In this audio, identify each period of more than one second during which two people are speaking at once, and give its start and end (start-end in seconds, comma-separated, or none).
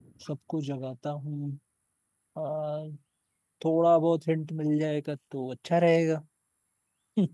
none